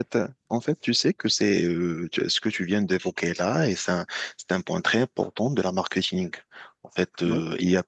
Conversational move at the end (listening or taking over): listening